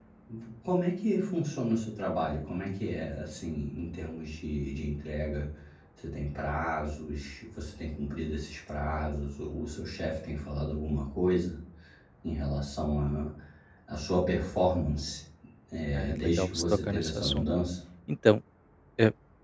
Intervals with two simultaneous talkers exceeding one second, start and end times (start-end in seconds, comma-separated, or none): 15.9-17.5